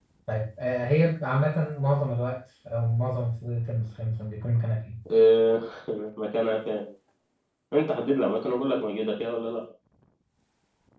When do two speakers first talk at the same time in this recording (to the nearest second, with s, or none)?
none